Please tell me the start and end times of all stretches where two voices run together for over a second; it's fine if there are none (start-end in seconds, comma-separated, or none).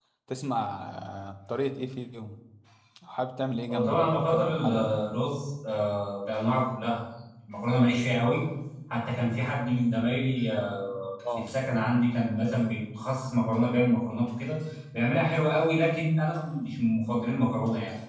3.7-4.9